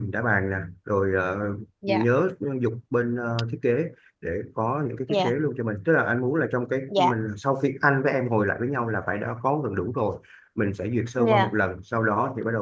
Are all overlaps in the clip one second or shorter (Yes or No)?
Yes